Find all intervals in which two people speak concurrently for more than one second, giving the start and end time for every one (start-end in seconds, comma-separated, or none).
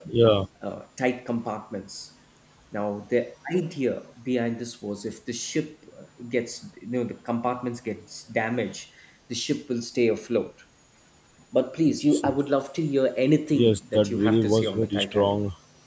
13.5-15.4